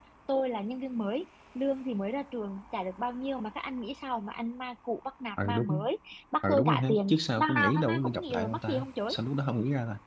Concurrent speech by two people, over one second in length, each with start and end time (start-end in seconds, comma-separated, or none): 6.4-9.1